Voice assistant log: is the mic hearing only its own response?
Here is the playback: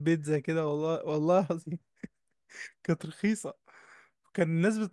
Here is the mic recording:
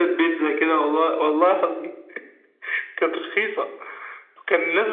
Yes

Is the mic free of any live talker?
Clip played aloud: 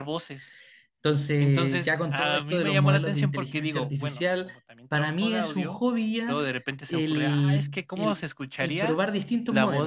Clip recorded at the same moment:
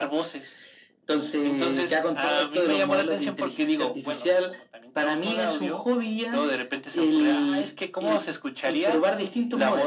Yes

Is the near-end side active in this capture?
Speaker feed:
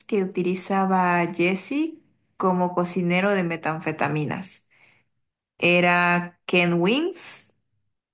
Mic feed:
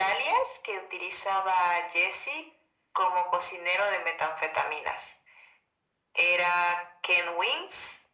No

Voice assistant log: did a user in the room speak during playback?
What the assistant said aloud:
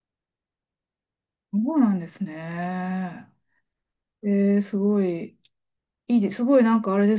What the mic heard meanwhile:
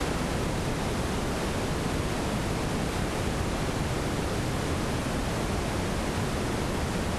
No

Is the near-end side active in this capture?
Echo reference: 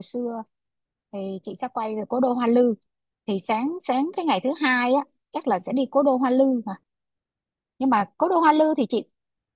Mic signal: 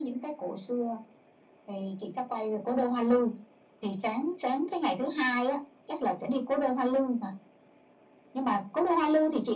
No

